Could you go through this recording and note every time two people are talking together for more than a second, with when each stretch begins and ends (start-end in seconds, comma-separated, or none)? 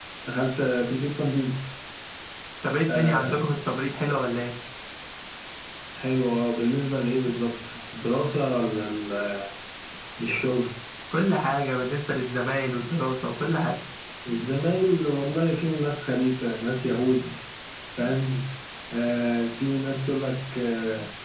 none